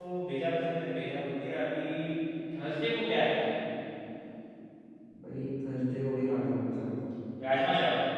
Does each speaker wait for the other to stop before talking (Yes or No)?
Yes